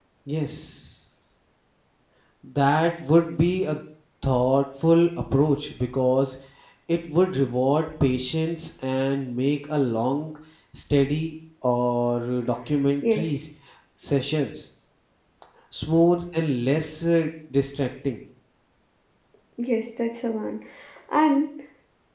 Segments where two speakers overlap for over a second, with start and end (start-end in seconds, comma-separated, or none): none